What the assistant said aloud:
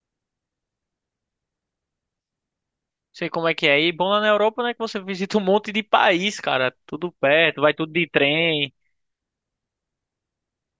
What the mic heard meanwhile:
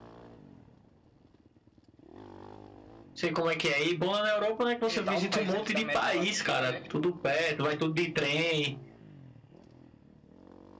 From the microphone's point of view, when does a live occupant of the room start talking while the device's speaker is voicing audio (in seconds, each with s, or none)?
4.8 s